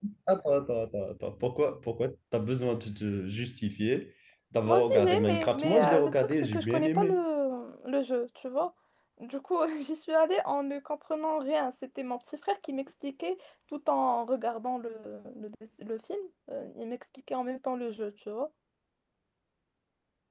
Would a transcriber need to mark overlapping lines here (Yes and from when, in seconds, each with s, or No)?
Yes, from 4.7 s